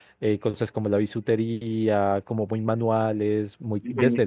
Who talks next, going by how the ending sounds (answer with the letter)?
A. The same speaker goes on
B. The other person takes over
A